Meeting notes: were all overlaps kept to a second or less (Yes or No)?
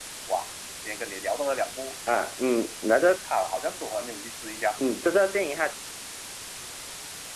Yes